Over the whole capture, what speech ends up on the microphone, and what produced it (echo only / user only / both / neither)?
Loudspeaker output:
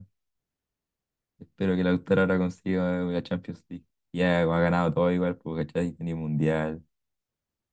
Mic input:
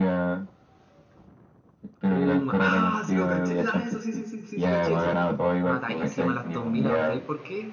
both